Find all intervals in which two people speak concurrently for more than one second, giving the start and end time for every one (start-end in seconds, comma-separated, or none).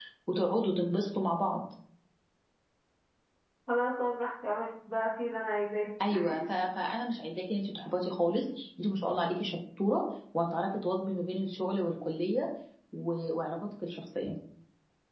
none